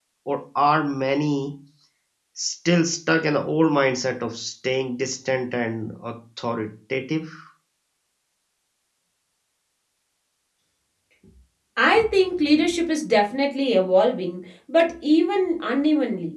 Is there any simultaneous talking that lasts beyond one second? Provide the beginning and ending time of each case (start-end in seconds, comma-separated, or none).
none